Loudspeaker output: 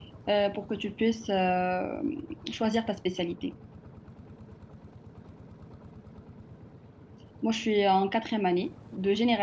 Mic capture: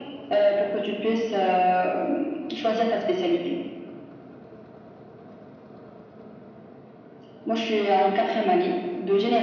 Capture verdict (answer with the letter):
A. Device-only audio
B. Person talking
A